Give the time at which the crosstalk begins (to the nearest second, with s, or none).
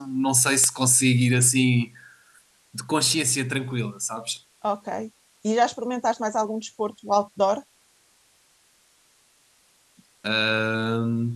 none